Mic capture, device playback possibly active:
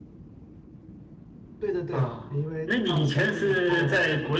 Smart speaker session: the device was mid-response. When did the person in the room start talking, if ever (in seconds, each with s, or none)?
1.6 s